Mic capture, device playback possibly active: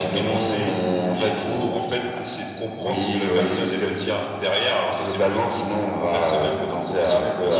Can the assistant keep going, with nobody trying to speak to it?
Yes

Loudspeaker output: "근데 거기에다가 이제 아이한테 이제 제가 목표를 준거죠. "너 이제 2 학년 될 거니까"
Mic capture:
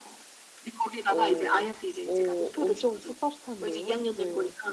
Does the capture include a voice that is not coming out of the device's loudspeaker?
Yes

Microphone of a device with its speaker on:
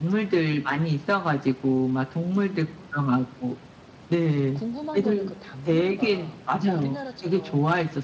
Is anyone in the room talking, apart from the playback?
Yes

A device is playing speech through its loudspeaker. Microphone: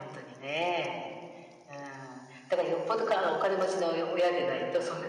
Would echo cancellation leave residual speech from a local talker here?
No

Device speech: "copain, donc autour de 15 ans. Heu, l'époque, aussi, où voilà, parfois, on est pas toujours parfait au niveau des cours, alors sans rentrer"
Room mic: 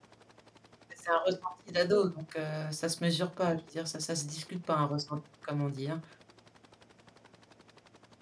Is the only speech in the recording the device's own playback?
No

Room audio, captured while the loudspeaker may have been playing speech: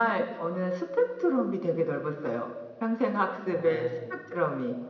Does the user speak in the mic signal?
Yes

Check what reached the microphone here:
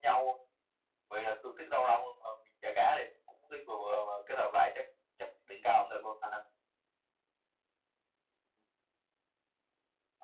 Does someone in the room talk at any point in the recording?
No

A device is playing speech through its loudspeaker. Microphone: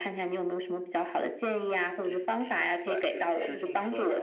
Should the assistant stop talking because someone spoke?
Yes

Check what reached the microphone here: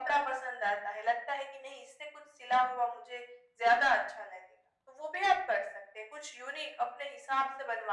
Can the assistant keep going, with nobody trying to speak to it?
Yes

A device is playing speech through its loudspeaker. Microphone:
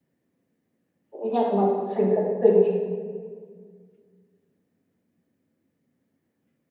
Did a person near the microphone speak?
Yes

